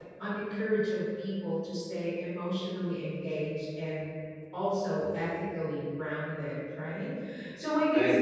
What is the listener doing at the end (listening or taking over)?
listening